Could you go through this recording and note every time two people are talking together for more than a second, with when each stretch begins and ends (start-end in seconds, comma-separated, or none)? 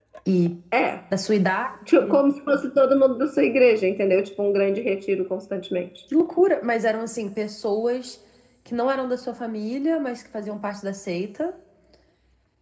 none